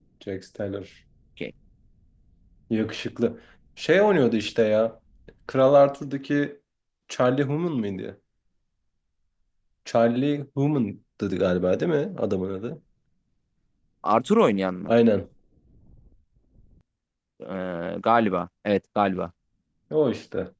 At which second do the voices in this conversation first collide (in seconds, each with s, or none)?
none